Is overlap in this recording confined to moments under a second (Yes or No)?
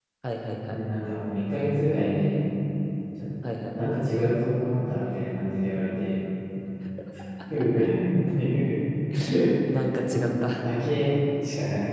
Yes